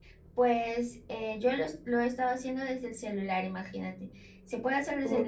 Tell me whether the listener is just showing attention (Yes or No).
Yes